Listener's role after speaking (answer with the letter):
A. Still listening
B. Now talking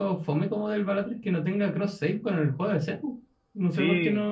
B